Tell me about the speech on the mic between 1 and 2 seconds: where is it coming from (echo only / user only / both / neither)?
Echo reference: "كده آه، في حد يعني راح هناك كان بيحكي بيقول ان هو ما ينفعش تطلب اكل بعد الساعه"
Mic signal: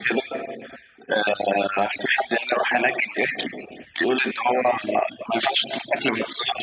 echo only